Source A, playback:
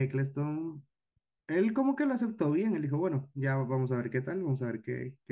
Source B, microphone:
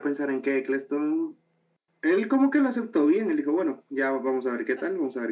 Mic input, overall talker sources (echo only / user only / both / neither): echo only